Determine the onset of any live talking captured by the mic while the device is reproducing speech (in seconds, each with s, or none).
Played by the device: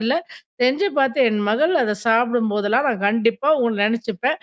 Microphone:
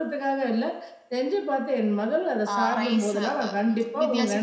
2.5 s